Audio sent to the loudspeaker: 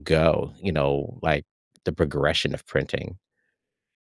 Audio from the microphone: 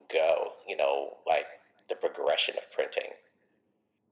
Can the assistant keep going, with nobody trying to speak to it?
Yes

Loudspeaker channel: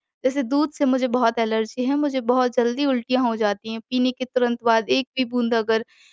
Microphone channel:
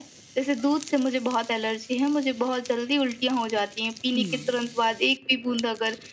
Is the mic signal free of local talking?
No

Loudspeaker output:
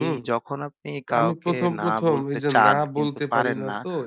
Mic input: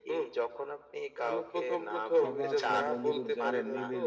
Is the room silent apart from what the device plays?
No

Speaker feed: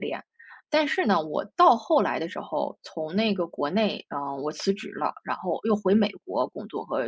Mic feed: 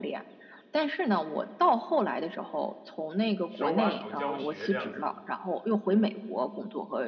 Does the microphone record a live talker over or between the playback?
Yes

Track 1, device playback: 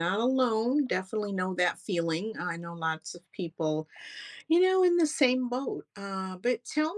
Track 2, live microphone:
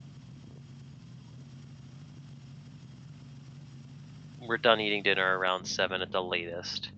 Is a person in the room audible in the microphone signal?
Yes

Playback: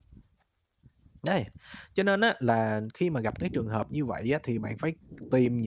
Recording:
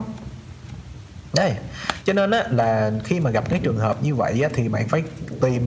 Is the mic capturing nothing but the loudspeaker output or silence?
Yes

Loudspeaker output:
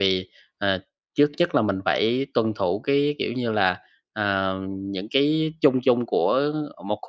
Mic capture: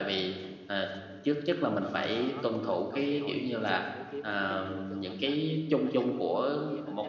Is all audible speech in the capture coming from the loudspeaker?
No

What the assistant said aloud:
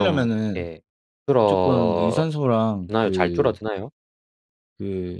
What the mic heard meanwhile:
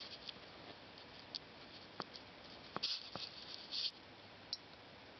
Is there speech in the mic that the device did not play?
No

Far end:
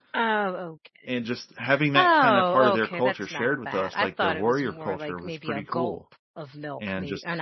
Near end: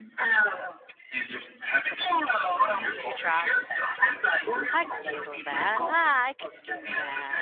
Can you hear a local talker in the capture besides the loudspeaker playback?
Yes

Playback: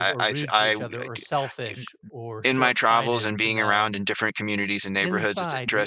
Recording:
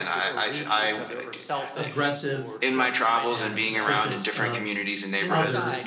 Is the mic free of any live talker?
No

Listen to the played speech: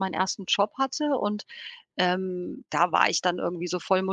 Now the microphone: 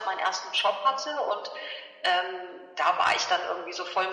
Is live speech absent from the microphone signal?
Yes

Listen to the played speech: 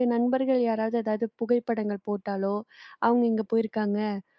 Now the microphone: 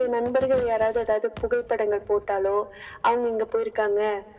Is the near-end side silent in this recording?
Yes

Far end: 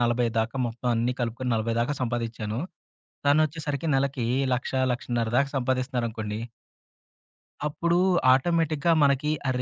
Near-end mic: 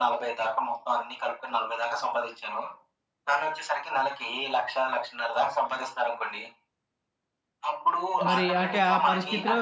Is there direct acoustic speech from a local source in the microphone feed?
Yes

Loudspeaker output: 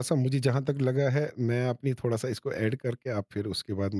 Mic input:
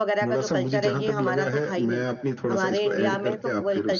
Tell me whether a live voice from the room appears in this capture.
Yes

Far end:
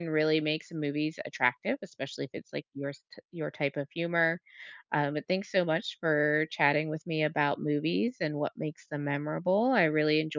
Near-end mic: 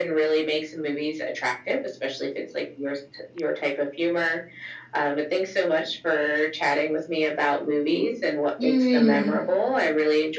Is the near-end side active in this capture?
Yes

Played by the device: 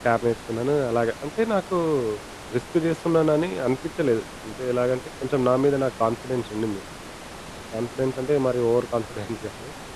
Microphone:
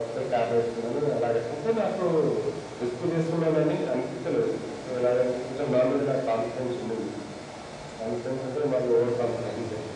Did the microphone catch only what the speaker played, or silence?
Yes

